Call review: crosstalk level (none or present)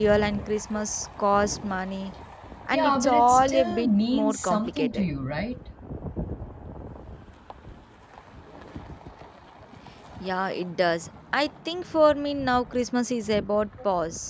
present